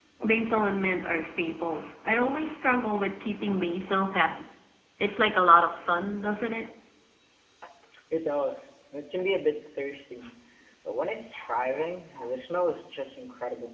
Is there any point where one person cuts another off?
No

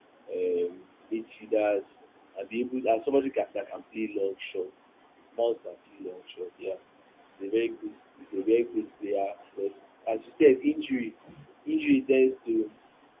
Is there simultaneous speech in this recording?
No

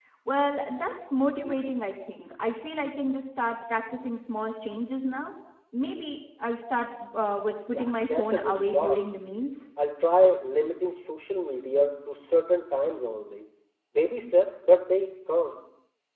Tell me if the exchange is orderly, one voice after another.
No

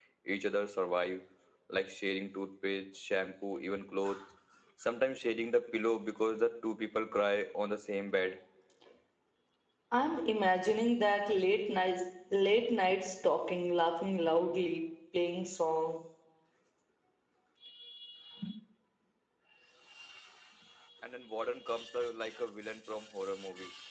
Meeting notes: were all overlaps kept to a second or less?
Yes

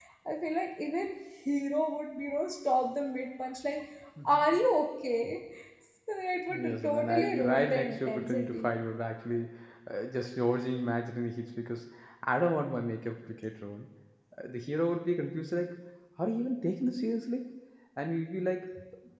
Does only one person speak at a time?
No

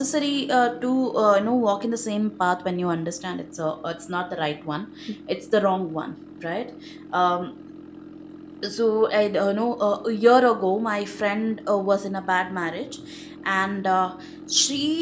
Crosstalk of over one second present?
No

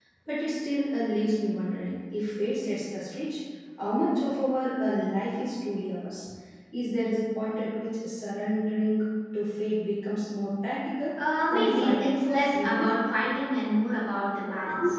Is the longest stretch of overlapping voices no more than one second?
No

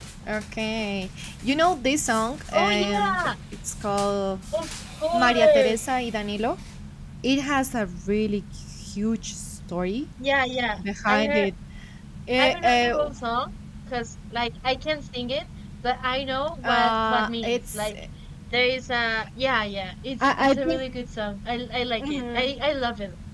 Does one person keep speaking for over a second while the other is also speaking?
Yes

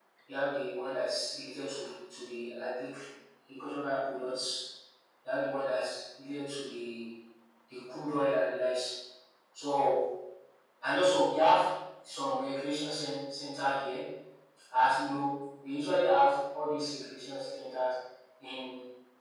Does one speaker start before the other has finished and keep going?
No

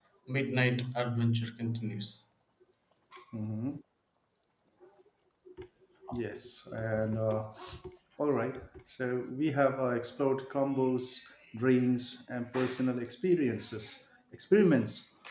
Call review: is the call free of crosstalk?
Yes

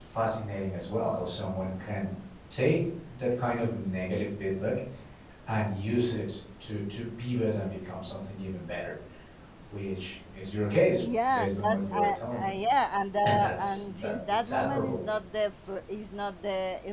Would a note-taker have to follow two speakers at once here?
Yes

